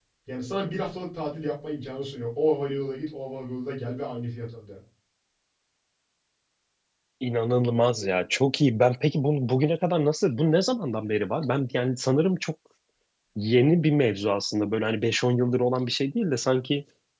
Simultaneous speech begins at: none

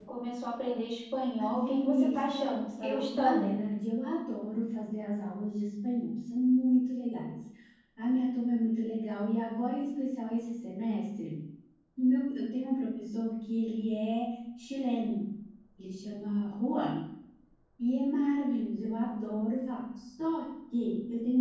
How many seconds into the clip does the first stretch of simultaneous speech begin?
1.4 s

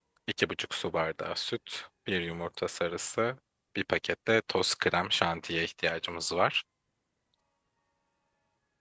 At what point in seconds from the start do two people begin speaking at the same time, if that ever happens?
none

